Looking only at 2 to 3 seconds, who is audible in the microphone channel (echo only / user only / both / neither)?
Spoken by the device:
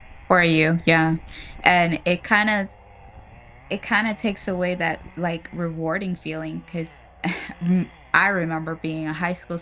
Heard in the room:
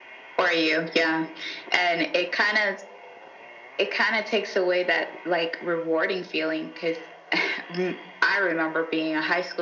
echo only